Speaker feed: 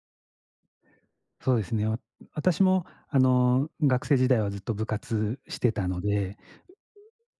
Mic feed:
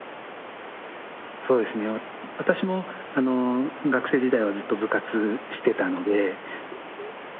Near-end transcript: none

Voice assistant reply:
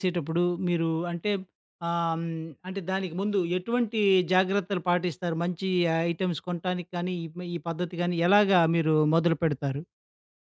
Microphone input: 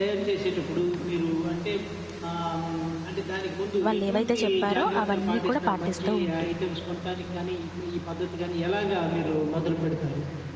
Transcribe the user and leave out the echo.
వాళ్ళేవైతే ఓకే. చెప్పారో అవన్నీ కూడా పాటిస్తూ ఉండి.

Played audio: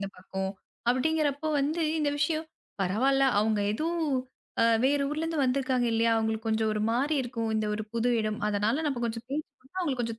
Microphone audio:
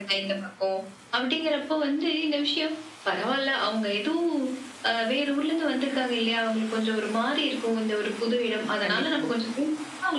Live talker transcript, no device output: கண்டிப்பாங்க.

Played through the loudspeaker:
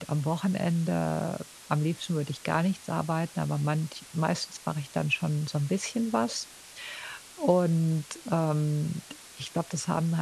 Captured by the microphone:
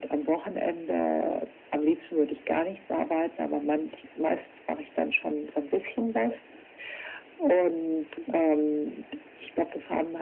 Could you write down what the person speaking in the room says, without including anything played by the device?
none

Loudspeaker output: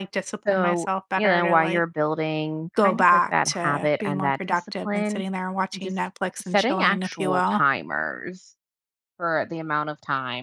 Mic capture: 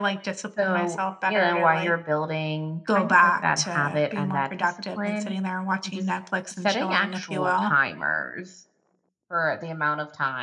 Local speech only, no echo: none

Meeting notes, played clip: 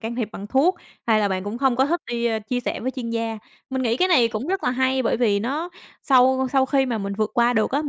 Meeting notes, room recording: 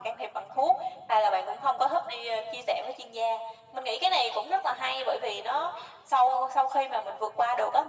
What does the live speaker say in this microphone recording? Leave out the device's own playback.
none

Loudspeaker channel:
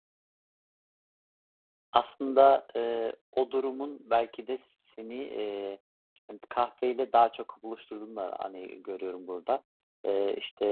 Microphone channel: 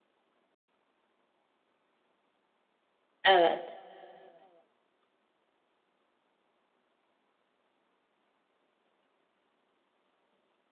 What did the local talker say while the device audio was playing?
Evet.

